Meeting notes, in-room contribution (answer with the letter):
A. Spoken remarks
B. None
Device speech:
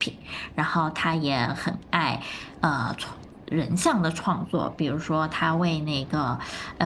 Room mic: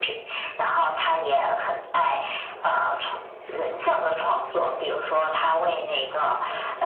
B